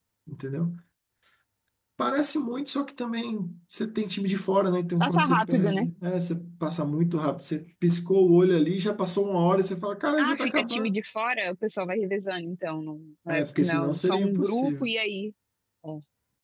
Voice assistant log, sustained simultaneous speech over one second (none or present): present